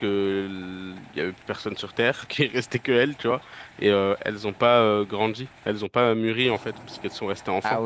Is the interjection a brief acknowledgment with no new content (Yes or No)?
No